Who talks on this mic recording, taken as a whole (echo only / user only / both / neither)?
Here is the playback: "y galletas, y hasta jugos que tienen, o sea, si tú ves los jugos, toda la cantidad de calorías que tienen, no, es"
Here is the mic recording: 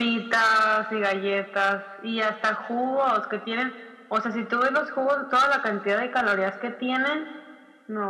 echo only